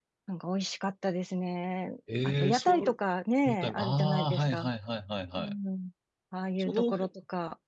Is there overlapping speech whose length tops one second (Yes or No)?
Yes